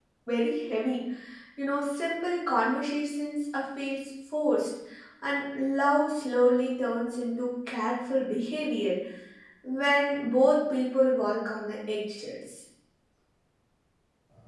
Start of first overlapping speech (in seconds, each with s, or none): none